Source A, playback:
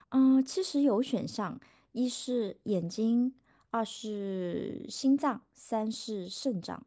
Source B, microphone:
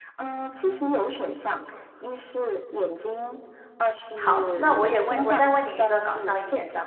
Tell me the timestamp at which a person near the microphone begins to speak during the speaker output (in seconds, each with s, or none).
4.1 s